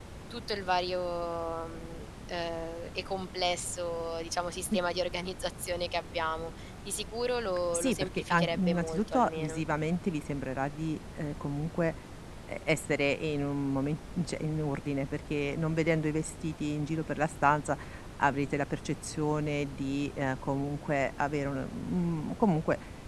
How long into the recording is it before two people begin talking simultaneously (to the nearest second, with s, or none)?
8 s